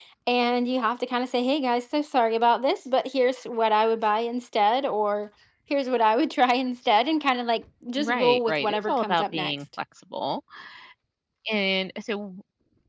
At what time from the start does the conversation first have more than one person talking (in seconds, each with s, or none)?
8.0 s